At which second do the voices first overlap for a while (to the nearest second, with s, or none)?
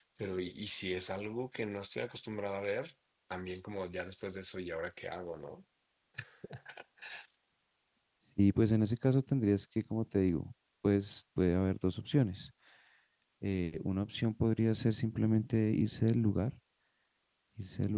none